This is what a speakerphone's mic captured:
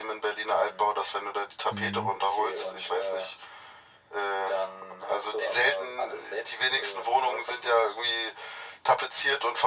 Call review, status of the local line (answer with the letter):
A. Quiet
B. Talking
B